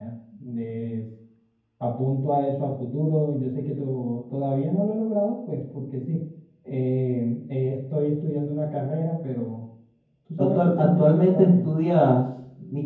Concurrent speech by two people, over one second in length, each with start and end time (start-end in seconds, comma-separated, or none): 10.4-11.7